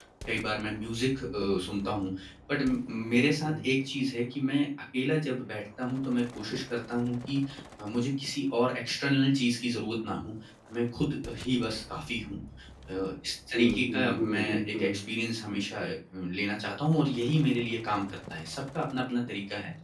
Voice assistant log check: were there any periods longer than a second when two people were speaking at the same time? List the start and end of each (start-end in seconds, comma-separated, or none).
13.5-14.9